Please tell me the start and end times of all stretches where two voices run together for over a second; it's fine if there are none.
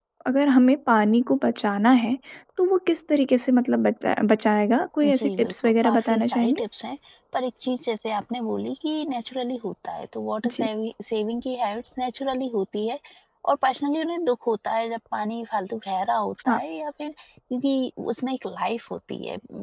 5.2-6.6

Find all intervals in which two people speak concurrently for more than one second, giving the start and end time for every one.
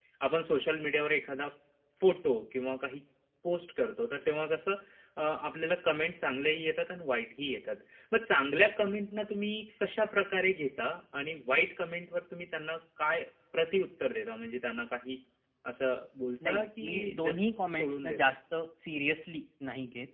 16.5-18.2

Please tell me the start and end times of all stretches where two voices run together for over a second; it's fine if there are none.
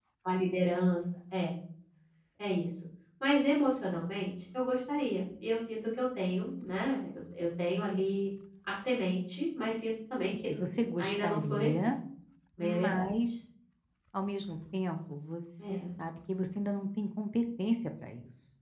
10.5-11.9

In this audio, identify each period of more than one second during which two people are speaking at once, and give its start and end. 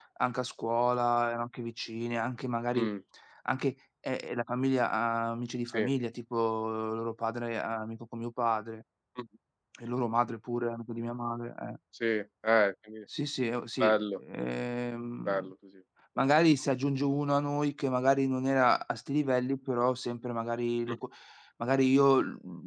none

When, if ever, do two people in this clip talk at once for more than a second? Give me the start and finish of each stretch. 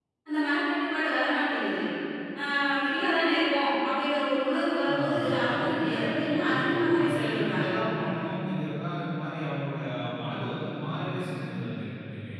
4.9-7.7

